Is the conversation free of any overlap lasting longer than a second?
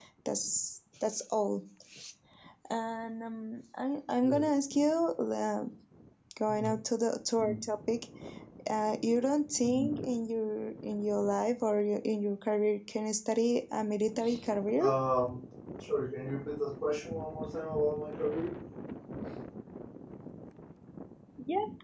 Yes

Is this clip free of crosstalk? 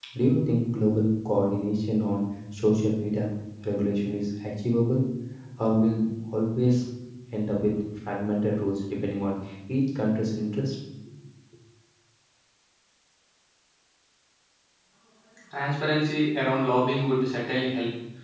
Yes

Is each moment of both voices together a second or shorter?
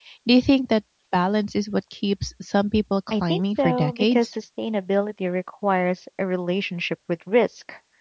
No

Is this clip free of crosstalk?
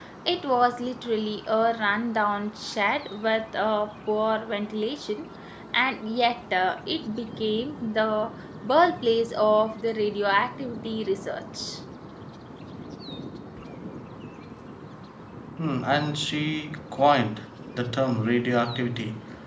Yes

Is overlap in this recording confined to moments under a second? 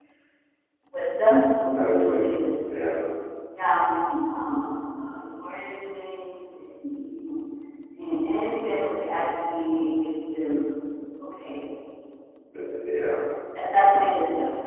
Yes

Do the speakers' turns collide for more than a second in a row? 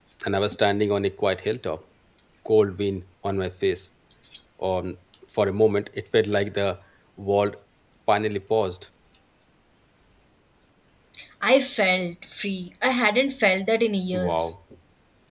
No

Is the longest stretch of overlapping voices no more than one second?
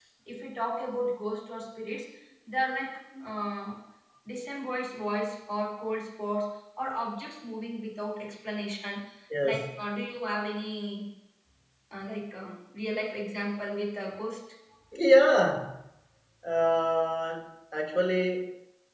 Yes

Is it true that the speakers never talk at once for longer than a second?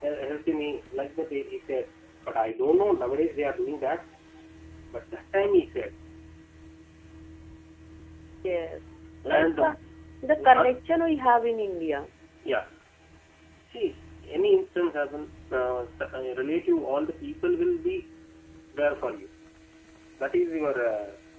Yes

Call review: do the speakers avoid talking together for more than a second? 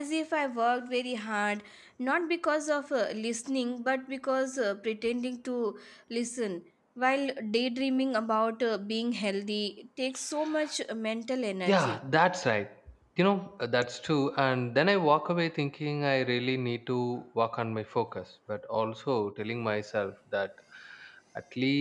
Yes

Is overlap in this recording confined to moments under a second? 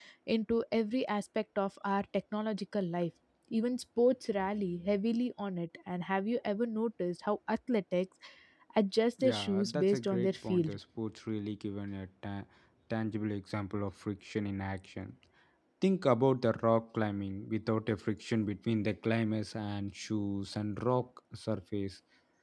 No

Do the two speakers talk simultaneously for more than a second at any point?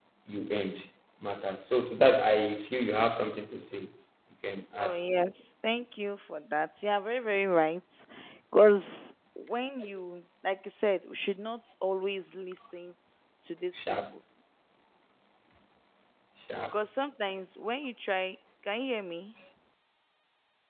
No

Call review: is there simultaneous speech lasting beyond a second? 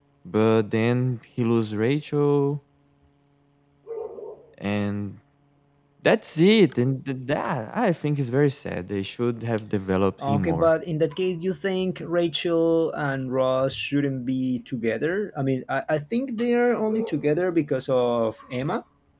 No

